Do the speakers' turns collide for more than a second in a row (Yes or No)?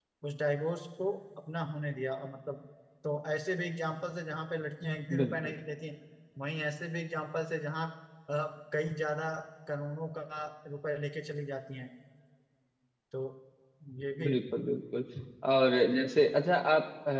No